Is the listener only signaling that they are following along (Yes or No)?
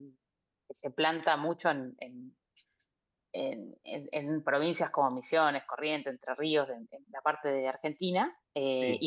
Yes